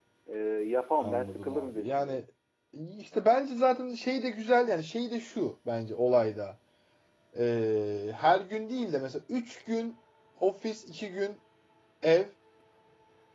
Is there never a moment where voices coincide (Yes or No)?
No